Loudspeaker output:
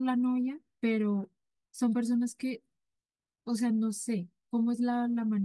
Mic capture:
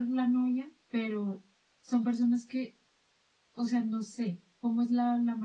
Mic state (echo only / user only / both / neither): echo only